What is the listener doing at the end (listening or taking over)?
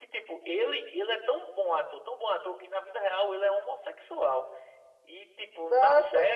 listening